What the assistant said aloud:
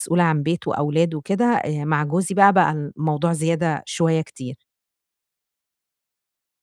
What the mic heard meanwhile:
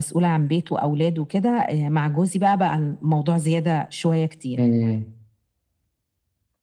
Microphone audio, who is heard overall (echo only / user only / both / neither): both